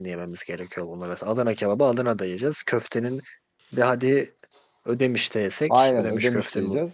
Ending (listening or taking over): taking over